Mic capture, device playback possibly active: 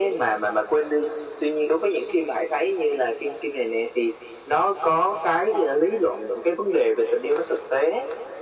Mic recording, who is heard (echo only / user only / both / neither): echo only